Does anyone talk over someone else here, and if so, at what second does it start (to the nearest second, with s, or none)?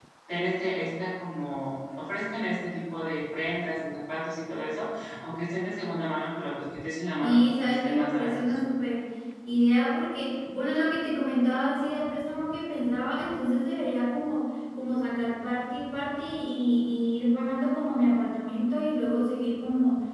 7 s